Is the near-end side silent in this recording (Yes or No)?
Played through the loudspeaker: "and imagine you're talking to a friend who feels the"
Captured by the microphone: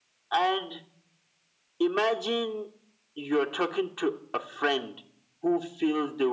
Yes